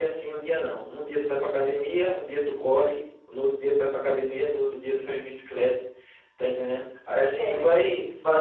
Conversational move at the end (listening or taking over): listening